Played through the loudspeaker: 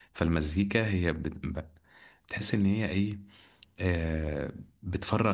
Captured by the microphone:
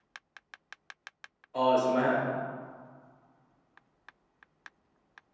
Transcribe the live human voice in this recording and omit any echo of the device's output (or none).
اه اسمها